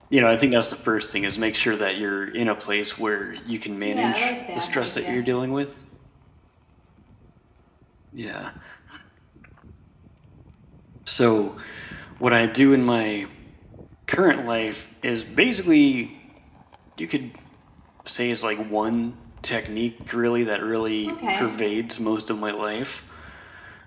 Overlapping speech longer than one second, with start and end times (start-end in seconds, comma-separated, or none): 3.8-5.2